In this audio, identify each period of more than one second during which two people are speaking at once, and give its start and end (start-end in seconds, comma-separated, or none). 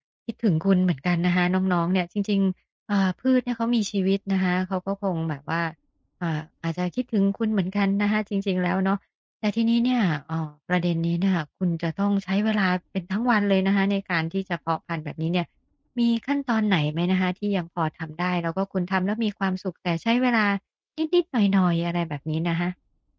none